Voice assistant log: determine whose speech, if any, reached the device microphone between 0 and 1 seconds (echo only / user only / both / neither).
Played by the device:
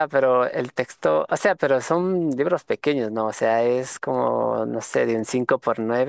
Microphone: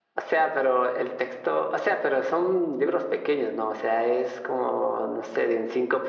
echo only